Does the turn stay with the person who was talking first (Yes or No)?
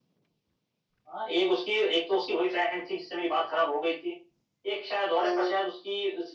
Yes